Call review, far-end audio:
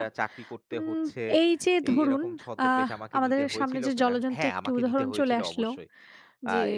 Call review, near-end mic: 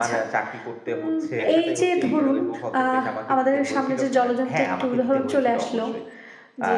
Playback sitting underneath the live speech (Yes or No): No